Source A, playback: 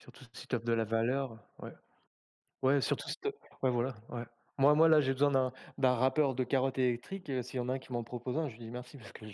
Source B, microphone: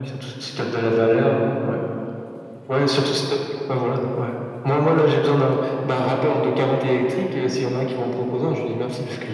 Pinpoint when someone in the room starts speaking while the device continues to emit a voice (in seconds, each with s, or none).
none